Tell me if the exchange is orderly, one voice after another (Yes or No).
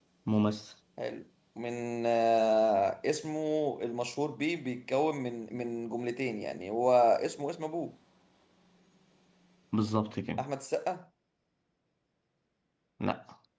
Yes